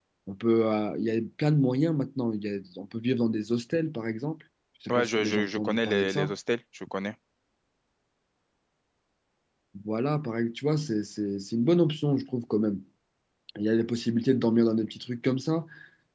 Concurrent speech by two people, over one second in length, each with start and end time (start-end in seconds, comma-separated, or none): 4.9-6.3